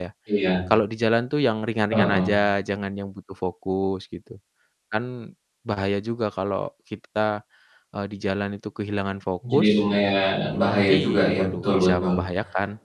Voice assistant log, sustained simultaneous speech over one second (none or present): present